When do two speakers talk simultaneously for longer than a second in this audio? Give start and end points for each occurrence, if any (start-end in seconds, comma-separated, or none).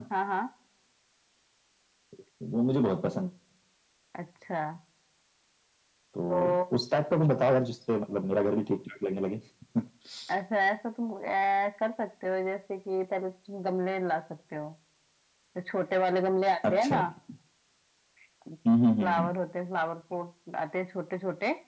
none